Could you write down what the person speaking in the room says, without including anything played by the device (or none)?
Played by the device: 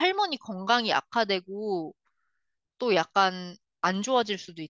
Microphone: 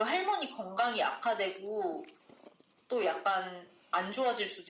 none